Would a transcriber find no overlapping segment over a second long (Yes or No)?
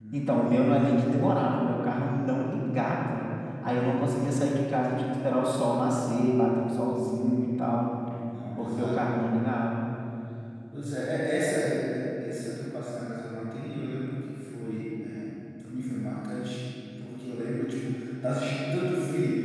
Yes